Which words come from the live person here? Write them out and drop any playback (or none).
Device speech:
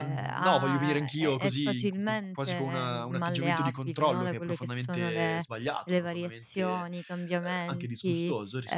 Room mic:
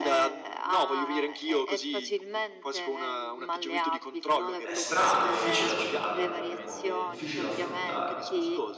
è strano, è difficile da accettare in qualche modo, è difficile da affrontare.